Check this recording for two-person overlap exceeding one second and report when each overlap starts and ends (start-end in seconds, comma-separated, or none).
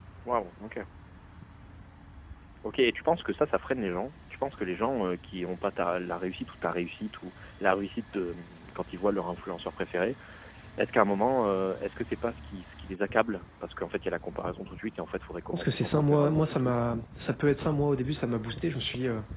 15.5-16.7